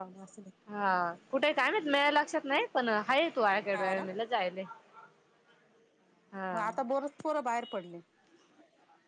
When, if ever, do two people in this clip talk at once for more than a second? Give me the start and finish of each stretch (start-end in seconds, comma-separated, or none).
none